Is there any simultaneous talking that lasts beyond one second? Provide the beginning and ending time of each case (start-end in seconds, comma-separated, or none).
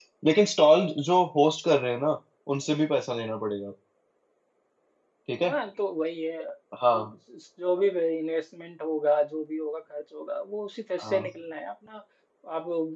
none